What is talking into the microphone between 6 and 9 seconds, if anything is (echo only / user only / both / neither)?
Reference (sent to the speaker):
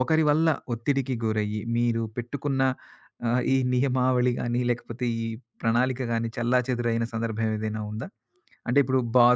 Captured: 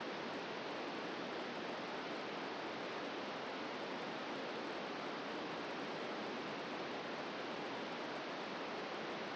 neither